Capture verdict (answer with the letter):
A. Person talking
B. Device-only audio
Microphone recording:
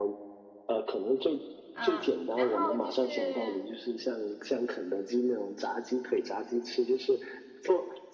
A